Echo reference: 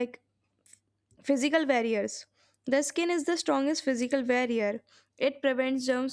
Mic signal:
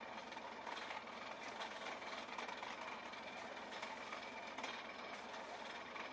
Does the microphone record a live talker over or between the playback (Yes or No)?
No